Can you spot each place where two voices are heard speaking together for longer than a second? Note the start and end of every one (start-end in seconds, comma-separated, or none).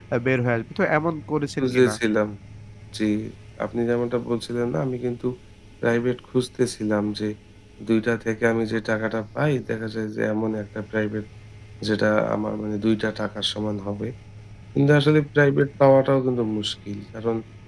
none